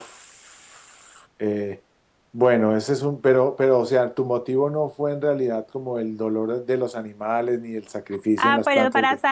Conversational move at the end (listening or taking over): taking over